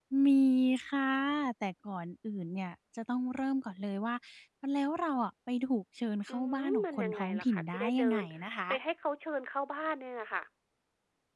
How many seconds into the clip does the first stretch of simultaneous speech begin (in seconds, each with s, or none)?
6.3 s